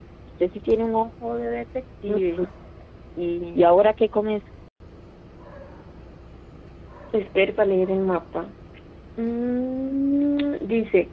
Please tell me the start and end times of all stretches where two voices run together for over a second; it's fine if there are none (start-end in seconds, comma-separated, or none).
none